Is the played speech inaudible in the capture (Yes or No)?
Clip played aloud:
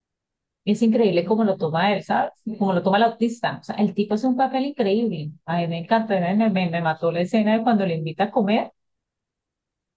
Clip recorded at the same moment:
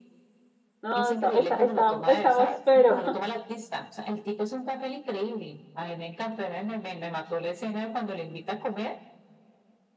No